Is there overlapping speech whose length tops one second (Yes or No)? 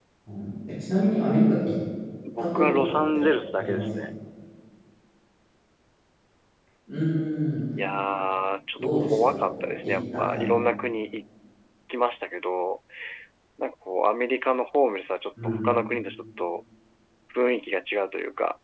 Yes